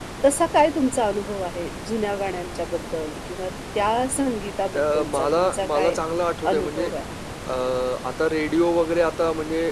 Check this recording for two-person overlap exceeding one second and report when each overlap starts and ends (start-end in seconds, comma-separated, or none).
4.8-6.0